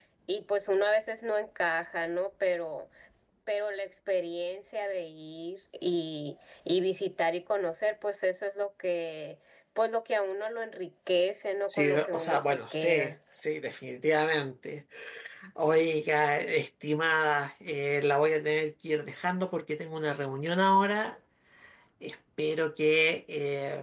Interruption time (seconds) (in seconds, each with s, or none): 11.7 s